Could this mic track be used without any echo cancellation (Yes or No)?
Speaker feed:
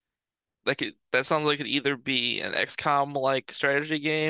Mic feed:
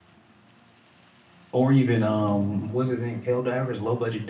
Yes